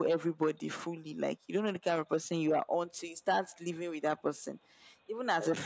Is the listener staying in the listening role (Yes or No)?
Yes